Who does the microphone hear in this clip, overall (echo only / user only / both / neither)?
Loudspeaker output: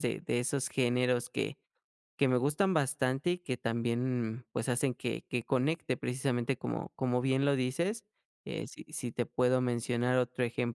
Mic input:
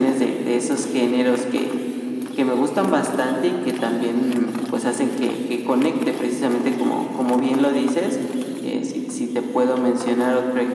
echo only